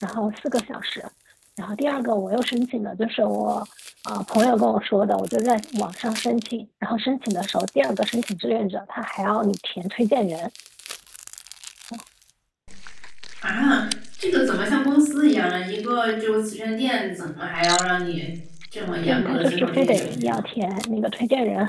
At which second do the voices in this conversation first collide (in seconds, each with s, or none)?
19.0 s